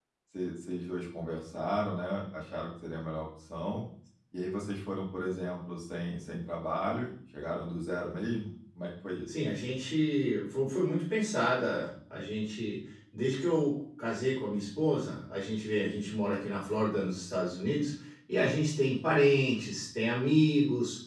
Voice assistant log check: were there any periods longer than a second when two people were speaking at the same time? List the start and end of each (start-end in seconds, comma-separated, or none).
none